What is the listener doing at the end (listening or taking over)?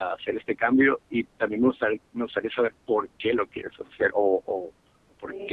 listening